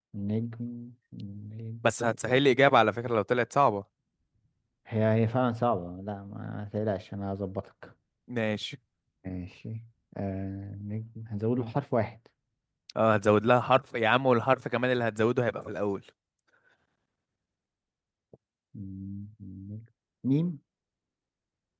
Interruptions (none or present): none